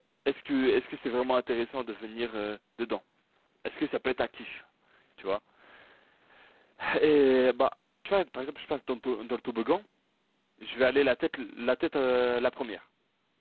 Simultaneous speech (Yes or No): No